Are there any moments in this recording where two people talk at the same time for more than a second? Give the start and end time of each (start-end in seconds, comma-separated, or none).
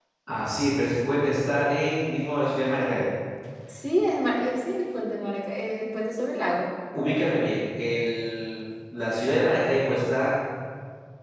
none